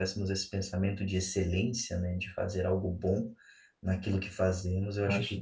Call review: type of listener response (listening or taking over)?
listening